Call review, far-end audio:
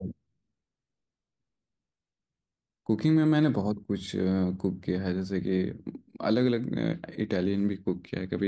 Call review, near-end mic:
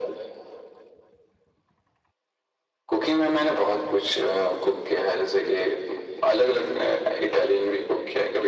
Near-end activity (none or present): none